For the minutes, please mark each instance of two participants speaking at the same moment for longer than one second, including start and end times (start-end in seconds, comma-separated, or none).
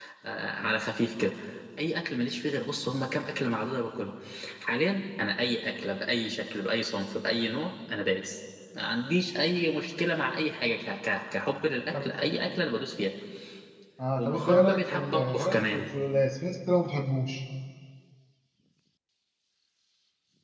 14.2-15.9